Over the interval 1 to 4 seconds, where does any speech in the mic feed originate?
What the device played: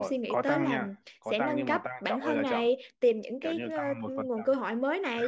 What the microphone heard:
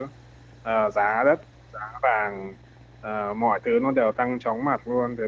user only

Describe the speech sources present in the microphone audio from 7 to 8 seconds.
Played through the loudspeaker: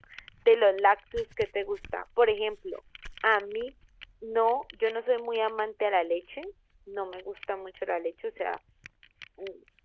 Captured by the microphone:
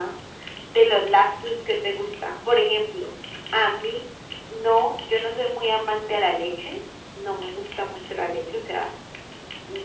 echo only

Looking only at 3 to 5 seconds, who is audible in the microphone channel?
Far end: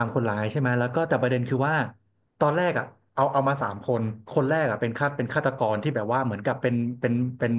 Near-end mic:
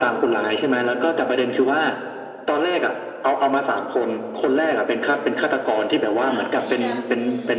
echo only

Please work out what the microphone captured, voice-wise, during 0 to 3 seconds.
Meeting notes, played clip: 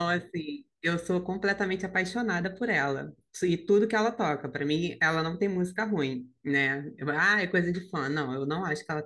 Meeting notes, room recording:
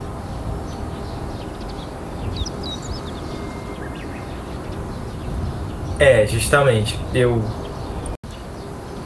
neither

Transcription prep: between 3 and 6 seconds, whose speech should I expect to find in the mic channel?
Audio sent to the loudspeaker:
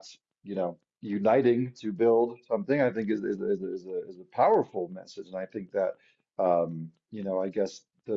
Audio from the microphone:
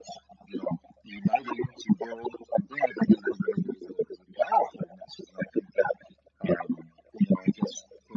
echo only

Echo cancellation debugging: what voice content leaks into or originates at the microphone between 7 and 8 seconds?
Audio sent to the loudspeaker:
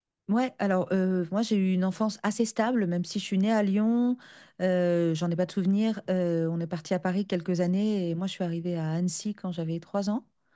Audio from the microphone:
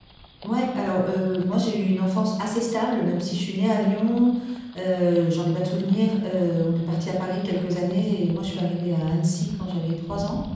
echo only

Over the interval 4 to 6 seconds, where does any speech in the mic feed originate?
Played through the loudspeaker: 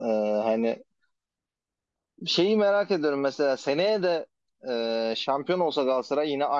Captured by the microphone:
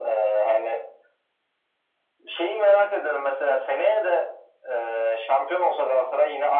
echo only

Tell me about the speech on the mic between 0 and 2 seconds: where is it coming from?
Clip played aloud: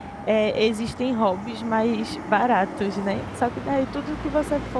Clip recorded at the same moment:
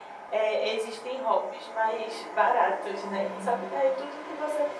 echo only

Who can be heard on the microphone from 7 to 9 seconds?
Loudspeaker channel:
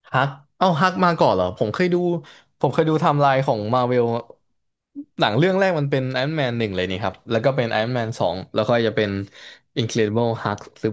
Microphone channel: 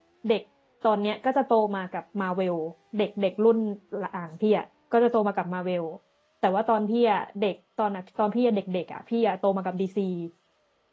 user only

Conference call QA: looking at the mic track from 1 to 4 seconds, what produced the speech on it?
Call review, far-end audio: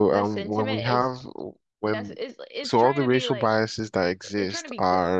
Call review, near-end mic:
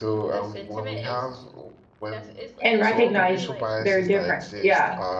both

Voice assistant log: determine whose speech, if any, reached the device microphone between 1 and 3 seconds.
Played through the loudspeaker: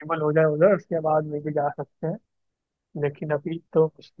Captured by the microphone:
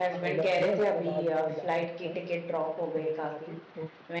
both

